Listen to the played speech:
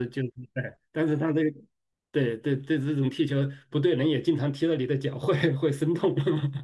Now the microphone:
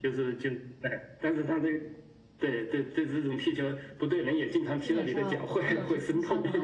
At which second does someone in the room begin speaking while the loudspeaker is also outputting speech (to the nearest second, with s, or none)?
5 s